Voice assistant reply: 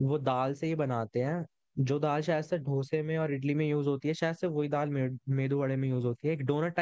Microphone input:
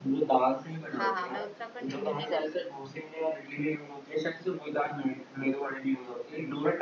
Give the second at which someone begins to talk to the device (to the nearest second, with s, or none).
1 s